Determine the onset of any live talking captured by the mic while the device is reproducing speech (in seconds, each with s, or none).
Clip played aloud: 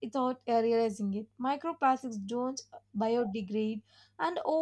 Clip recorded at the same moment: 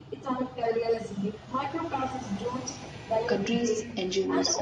3.3 s